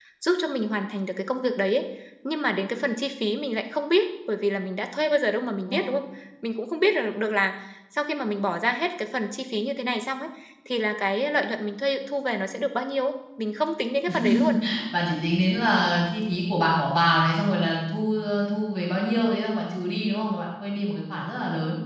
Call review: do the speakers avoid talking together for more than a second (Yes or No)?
Yes